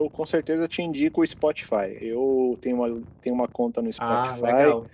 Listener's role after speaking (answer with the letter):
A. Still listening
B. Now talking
A